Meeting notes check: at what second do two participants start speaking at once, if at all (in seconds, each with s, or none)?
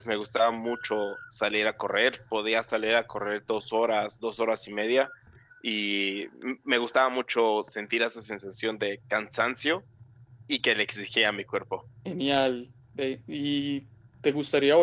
none